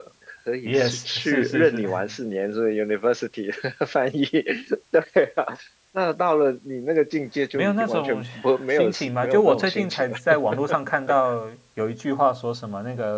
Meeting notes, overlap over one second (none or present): present